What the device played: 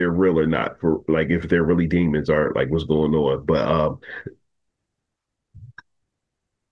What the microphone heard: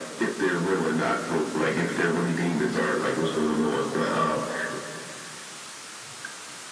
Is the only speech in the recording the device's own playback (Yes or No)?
Yes